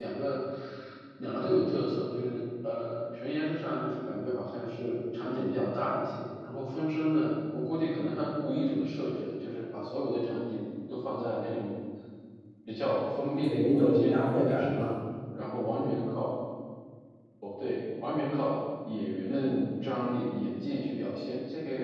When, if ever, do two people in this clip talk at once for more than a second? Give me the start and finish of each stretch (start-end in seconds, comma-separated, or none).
13.4-14.9